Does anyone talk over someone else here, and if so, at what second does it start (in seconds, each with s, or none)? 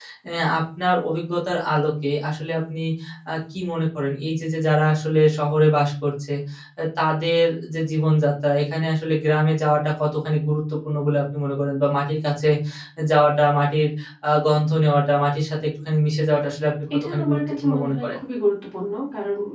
16.9 s